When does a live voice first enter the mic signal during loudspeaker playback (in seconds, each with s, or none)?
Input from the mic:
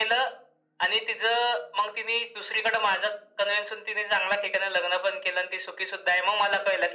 none